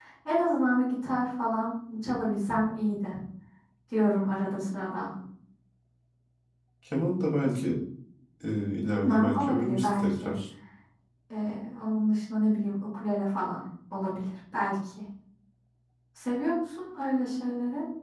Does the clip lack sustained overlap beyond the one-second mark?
No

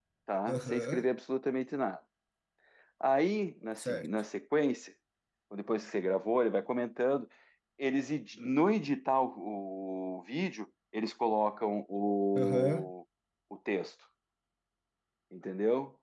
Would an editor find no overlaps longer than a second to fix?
Yes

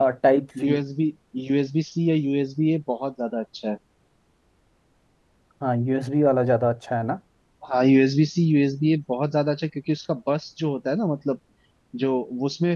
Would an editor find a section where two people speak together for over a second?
No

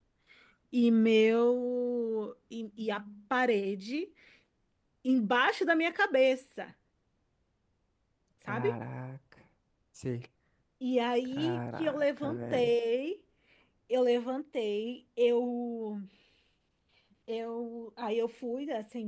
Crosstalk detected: Yes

